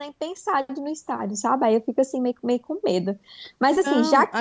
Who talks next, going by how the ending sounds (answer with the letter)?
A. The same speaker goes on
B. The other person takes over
B